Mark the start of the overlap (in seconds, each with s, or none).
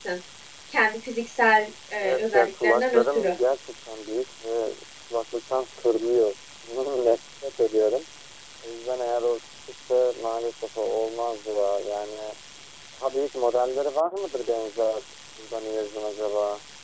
2.0 s